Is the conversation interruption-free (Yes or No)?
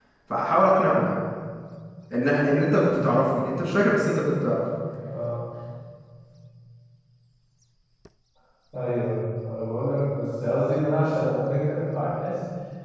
Yes